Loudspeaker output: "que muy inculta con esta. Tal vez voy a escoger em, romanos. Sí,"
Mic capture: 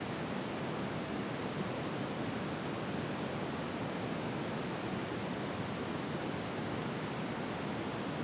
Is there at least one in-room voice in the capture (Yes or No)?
No